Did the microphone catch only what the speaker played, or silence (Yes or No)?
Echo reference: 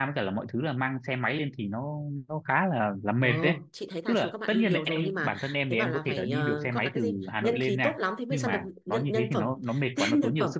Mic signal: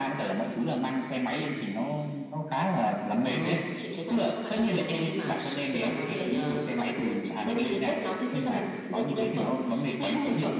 Yes